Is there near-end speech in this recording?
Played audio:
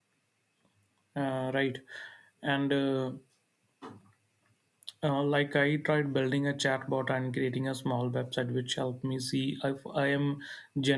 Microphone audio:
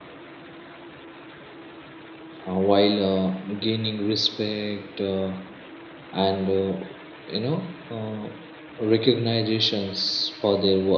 Yes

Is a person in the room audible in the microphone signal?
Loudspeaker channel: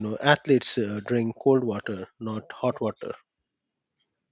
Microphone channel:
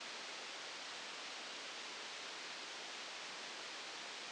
No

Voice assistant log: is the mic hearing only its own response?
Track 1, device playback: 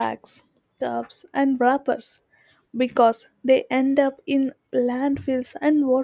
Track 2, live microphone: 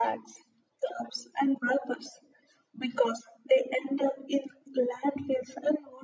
Yes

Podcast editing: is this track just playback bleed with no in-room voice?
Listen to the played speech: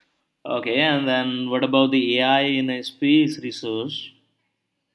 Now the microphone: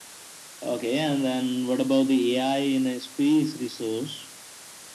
Yes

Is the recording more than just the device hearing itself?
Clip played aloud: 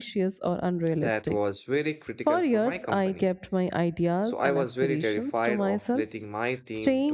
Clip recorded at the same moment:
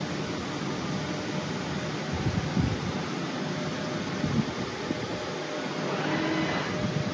No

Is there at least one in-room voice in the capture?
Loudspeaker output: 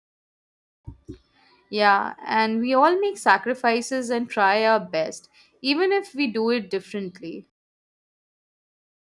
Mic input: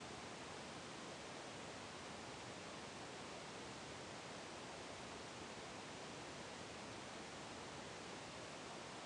No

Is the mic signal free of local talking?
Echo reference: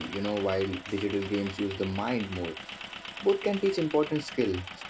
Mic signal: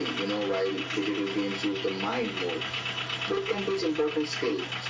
Yes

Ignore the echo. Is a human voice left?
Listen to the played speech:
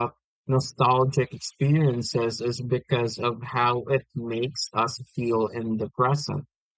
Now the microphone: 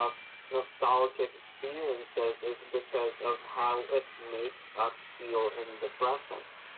No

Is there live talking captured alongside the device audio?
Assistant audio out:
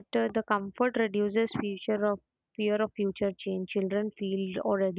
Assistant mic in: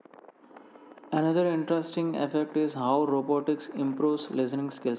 Yes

